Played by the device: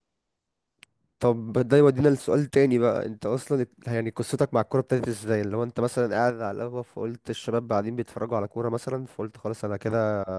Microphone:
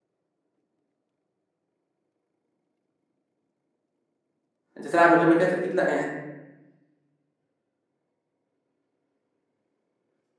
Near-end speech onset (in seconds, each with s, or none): 4.8 s